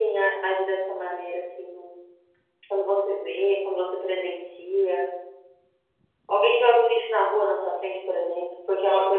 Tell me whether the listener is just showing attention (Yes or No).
No